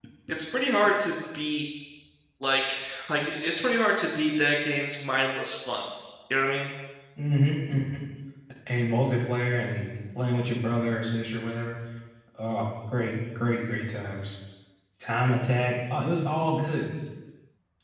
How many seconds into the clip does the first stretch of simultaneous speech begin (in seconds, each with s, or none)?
none